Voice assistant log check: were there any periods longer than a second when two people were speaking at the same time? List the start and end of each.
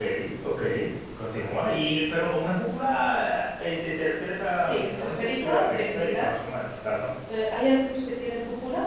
4.6-6.3

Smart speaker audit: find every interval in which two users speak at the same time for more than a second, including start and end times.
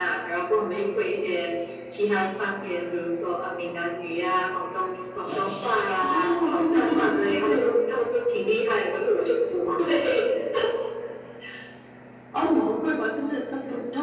6.0-7.7

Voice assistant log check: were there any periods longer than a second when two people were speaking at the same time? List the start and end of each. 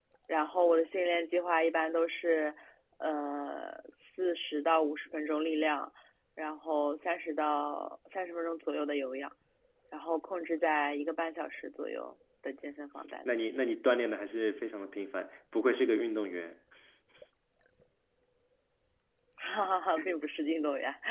none

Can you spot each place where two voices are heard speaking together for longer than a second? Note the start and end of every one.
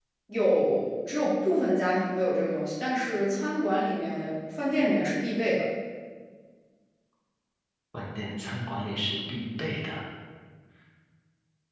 none

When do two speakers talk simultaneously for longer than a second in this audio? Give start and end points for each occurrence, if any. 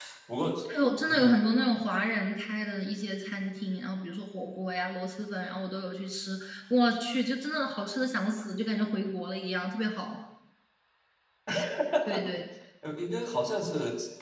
none

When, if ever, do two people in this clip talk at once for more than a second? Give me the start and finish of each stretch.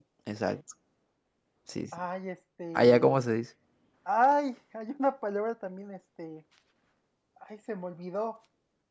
none

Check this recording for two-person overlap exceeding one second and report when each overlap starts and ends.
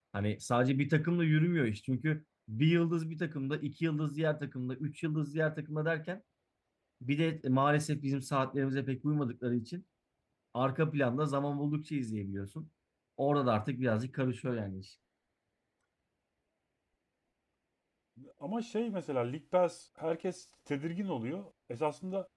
none

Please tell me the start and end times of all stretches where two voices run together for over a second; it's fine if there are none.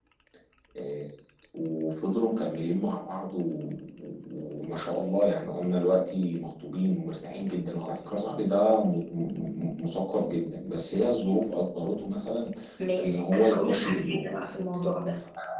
13.0-14.2

